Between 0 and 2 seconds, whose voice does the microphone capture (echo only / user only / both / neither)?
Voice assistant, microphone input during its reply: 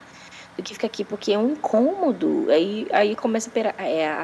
echo only